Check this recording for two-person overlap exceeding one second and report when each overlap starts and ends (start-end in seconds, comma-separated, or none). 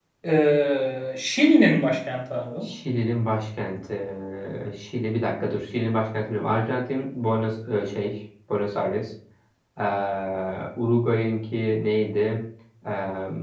none